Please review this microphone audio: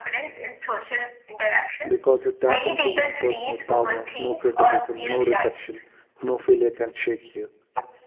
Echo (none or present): present